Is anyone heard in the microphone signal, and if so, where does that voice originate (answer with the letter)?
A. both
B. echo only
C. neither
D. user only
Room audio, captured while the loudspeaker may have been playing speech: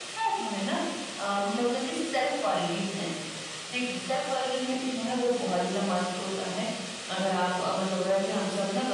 B